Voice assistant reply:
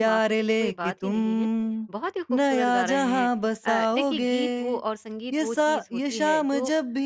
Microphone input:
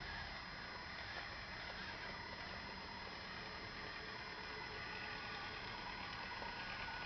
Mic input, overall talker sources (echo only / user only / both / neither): neither